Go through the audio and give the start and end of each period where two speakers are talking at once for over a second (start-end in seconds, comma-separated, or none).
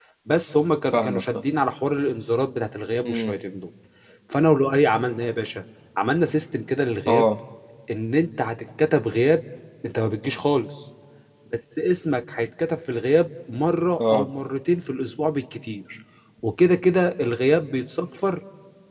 none